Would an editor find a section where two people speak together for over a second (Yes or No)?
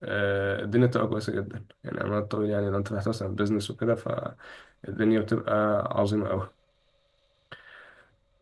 No